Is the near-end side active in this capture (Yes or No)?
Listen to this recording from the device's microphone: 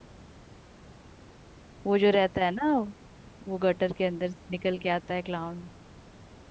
Yes